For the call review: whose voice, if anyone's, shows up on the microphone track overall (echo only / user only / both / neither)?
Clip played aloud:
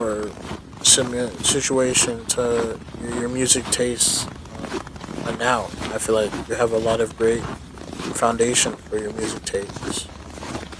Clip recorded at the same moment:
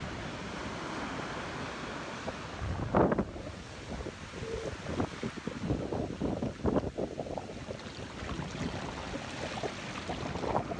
neither